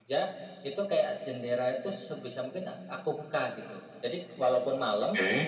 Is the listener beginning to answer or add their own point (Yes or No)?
No